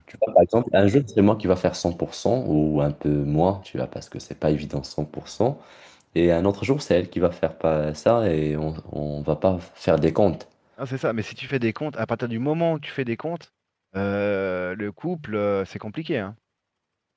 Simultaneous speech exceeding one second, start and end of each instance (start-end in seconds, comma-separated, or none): none